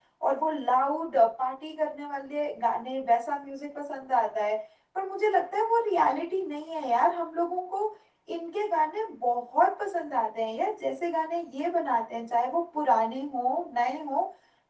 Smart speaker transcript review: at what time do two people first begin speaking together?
none

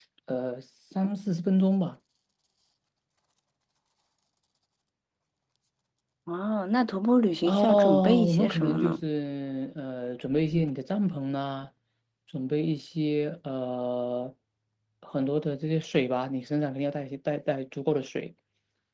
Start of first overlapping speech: 7.5 s

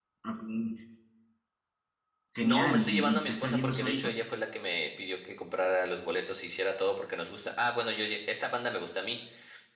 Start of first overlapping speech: 2.4 s

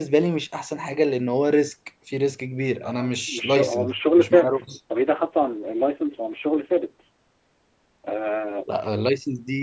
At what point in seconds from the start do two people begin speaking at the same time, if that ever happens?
2.8 s

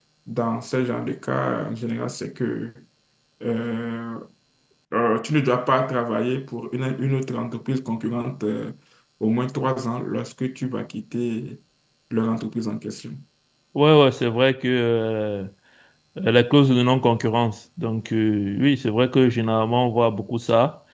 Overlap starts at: none

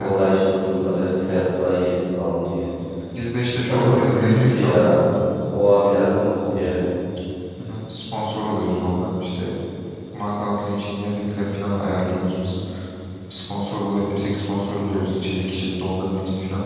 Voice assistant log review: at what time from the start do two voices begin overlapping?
3.7 s

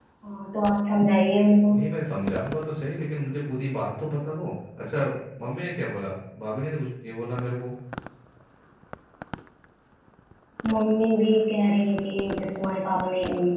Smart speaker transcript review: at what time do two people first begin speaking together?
none

